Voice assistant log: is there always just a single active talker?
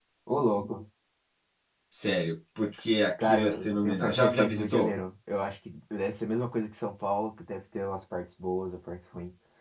No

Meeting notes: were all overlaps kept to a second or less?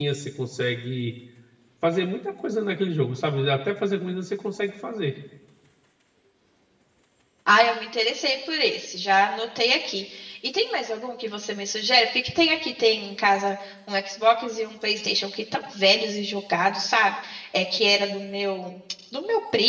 Yes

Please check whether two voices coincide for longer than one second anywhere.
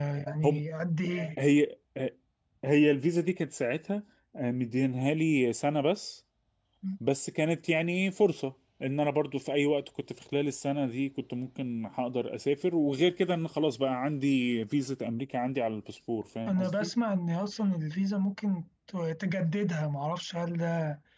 No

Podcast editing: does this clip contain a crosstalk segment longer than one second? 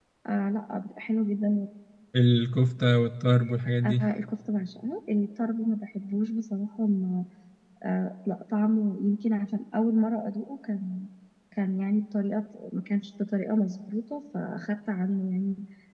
No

